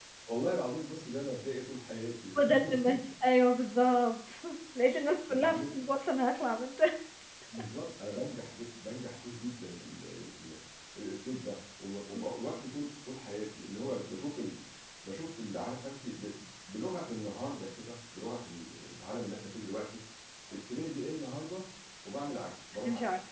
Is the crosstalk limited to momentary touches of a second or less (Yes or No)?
Yes